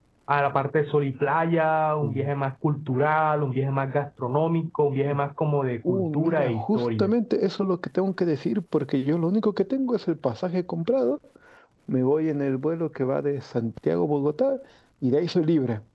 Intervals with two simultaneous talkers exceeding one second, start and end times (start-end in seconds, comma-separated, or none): 5.9-7.1